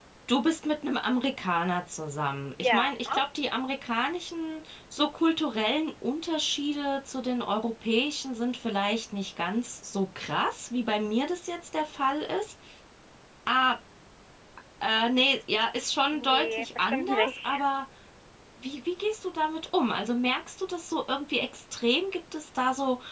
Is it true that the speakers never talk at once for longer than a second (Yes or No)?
No